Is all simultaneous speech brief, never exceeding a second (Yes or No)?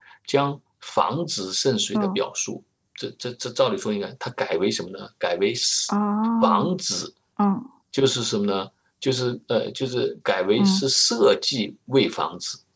Yes